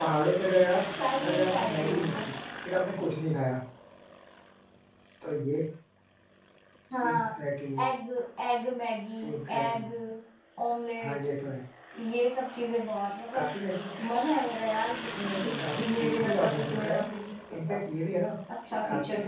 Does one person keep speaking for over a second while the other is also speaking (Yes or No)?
Yes